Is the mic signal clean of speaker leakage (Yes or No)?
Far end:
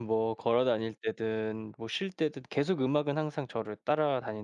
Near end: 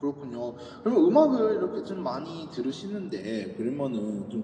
Yes